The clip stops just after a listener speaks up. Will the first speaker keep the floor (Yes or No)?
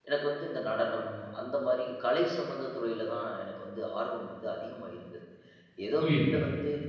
Yes